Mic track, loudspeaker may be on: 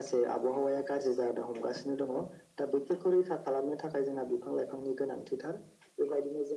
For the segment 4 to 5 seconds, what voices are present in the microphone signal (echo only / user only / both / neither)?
echo only